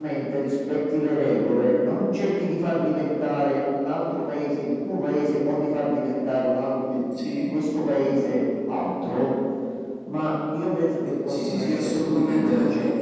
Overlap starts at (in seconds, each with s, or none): 11.3 s